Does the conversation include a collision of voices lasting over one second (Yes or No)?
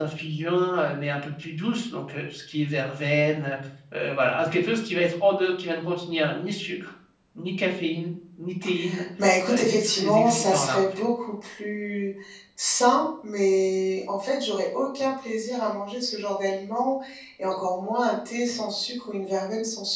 Yes